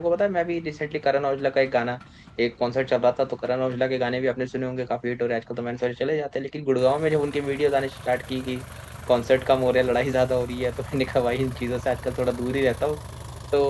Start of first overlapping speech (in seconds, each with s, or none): none